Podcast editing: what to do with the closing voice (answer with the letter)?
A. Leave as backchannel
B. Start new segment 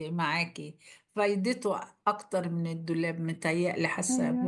A